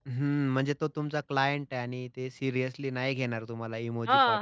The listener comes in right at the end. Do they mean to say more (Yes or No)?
Yes